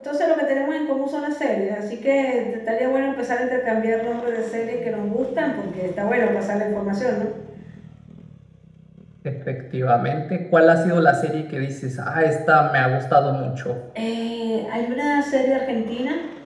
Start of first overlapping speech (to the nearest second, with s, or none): none